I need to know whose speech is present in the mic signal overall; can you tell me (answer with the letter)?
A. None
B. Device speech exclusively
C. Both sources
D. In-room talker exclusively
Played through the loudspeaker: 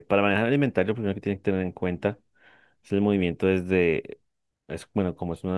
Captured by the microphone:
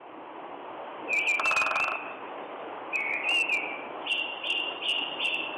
A